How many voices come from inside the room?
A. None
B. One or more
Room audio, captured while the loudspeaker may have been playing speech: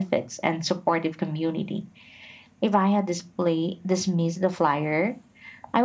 A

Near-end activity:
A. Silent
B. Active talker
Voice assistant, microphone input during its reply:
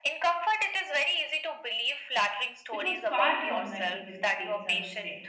B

